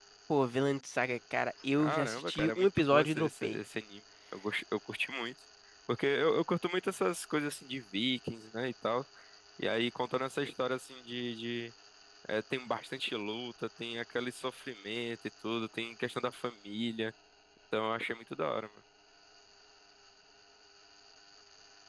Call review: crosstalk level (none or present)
present